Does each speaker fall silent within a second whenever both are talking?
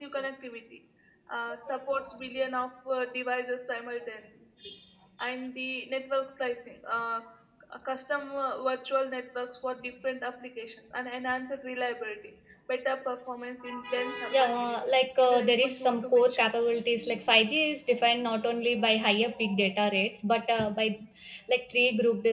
No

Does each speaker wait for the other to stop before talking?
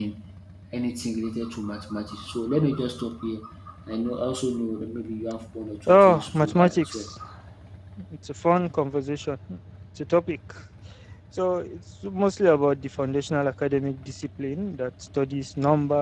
No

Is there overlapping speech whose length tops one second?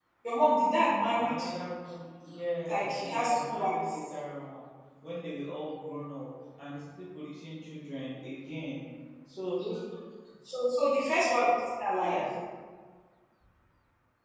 Yes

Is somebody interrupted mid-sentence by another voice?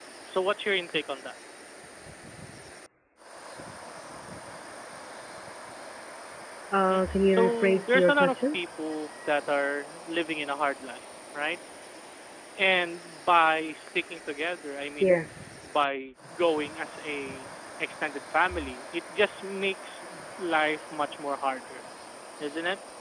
Yes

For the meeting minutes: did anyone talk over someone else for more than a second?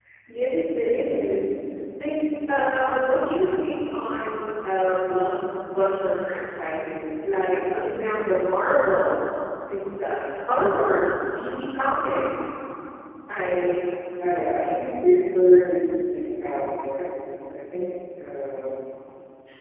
No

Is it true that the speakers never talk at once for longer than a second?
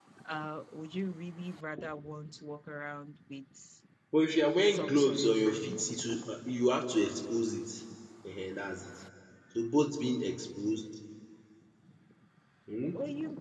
No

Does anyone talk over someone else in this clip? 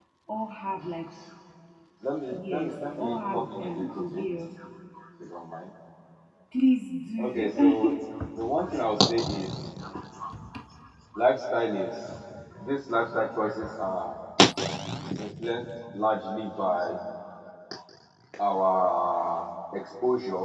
Yes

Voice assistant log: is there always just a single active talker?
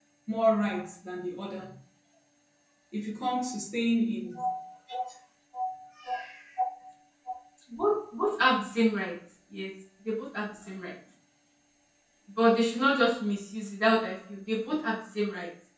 Yes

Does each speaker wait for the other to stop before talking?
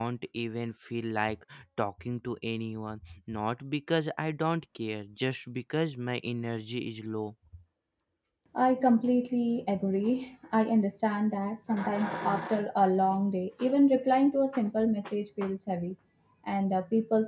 Yes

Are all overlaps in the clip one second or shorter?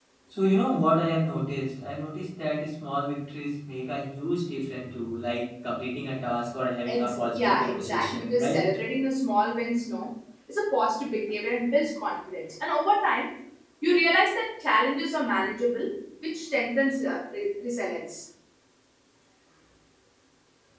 No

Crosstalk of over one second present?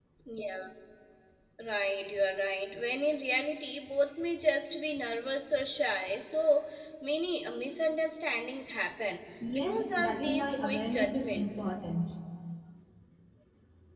Yes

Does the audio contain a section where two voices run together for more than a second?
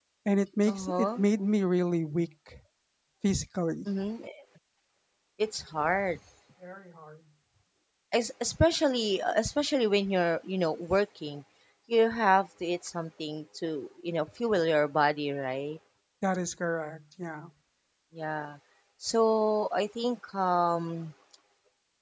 No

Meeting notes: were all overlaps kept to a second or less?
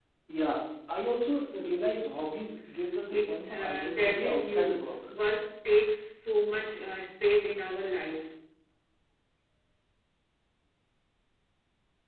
No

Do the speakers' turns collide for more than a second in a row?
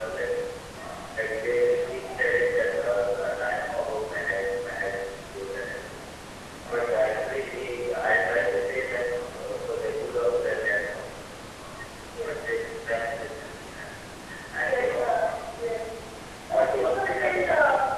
Yes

